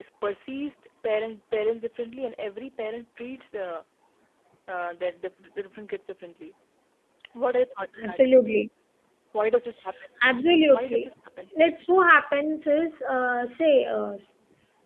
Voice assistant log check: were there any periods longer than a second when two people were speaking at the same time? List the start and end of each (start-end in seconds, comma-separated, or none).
none